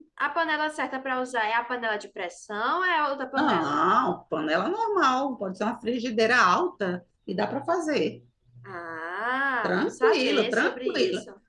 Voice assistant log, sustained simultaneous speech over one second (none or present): present